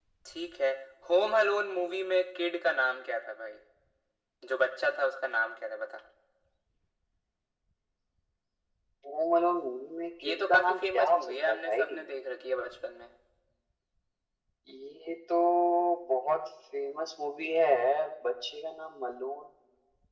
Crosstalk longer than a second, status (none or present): present